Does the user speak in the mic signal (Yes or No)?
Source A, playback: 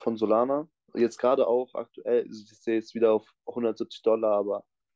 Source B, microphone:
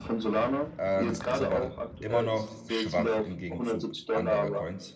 Yes